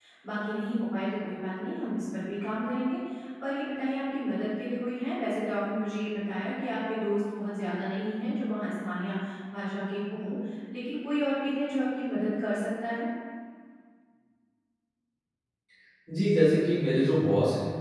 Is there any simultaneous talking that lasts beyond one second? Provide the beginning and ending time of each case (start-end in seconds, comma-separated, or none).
none